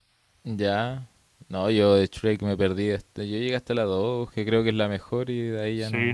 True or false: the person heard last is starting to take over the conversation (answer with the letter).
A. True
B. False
A